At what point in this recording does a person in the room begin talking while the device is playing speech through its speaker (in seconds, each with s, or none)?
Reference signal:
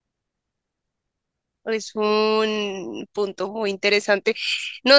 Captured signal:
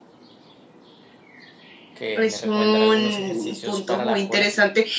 1.9 s